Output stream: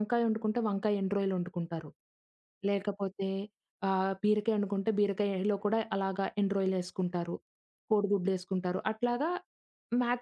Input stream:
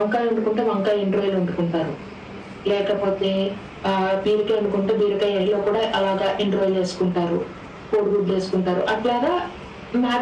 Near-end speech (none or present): none